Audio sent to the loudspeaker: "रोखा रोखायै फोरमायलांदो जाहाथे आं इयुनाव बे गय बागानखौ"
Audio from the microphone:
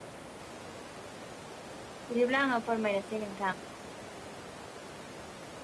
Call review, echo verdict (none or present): none